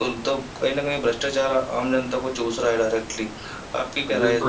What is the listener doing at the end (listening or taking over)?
taking over